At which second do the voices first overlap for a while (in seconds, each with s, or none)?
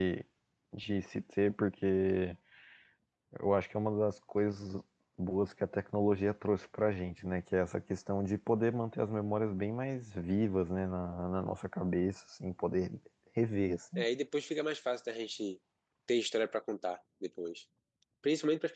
none